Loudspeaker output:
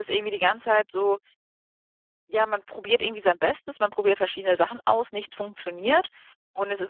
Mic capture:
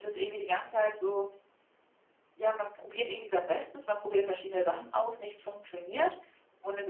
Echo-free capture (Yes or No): No